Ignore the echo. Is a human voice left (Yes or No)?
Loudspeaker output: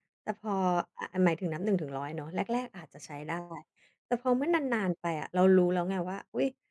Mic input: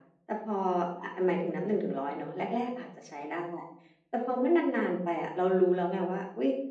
No